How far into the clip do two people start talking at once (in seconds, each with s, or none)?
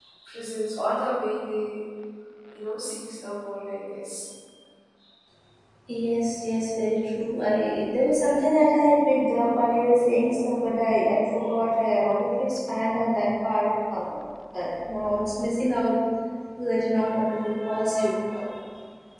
none